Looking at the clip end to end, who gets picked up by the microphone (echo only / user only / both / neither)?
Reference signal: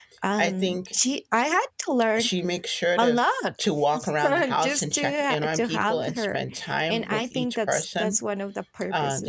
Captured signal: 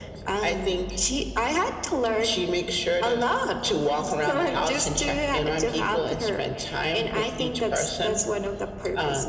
echo only